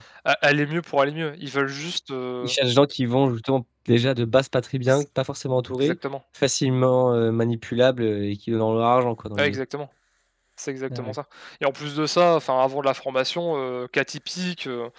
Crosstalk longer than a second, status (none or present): none